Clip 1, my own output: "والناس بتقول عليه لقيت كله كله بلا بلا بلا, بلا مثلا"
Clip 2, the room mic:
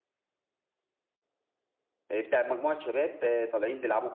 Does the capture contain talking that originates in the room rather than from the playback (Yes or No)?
Yes